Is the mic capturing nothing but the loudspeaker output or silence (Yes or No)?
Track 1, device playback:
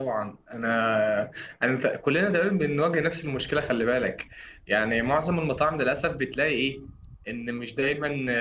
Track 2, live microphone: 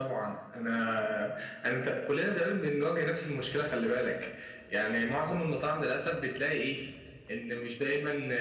Yes